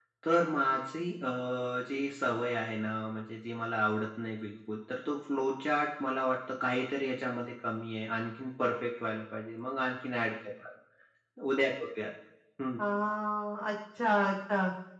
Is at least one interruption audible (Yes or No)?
No